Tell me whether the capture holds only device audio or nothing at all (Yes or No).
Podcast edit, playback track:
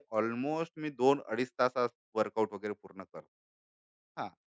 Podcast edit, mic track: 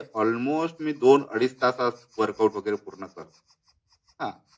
Yes